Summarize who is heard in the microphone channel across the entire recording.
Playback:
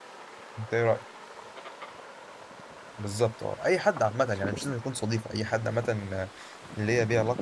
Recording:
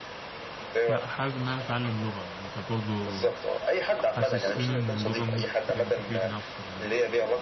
both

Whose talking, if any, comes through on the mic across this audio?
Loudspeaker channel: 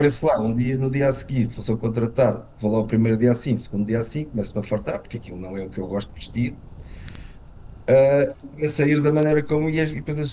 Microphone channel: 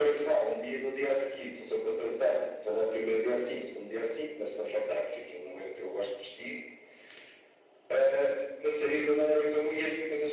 echo only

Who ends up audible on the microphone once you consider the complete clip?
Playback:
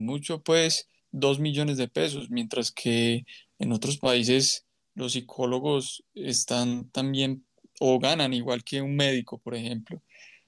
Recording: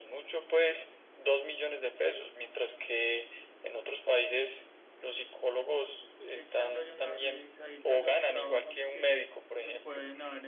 both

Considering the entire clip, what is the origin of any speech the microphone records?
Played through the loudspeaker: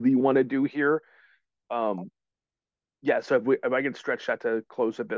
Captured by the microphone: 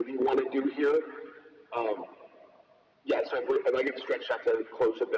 echo only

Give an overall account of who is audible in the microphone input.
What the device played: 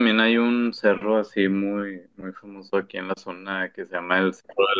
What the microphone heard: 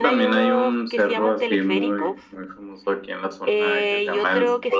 both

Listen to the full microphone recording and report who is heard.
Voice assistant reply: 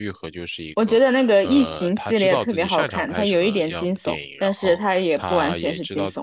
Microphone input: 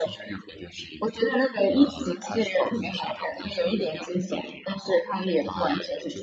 echo only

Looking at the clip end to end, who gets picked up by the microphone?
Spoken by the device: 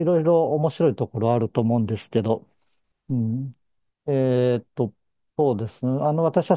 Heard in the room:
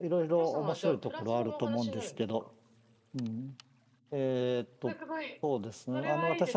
both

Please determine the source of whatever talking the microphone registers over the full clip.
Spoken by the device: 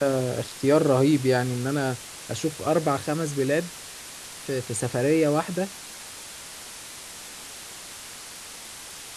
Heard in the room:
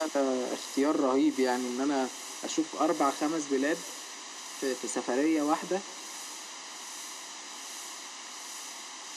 echo only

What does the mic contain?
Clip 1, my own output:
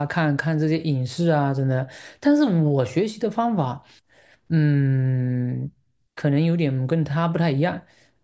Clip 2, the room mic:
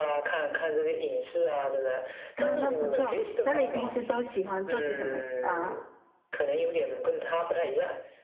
both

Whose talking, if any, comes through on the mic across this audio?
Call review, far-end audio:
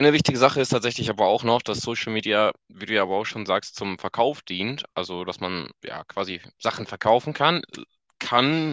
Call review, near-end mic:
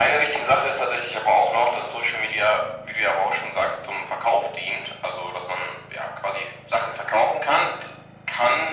echo only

